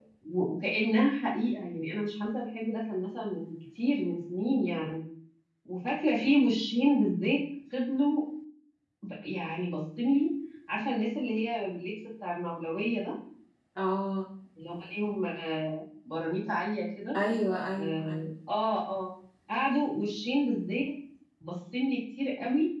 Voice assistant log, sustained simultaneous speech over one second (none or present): none